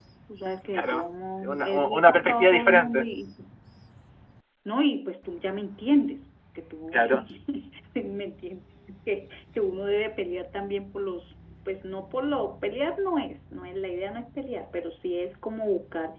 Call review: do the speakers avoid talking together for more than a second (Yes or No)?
No